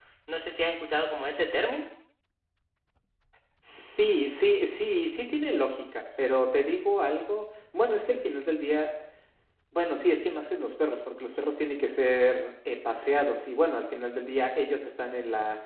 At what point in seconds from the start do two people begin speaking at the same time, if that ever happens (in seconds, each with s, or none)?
none